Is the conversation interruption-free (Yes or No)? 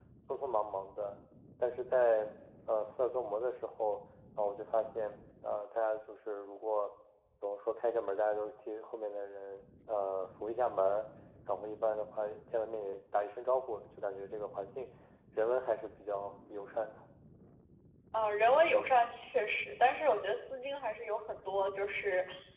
Yes